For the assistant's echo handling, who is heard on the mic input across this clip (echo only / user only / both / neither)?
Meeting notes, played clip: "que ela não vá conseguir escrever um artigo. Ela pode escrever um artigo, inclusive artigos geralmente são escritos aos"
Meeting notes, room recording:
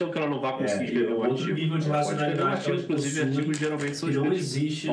both